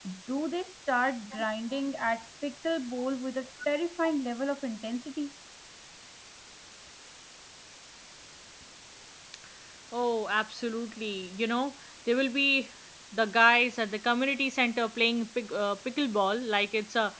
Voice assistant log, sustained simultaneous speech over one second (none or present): none